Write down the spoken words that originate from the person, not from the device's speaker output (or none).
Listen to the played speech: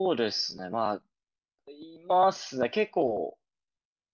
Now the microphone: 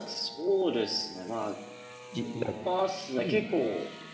じな。うん。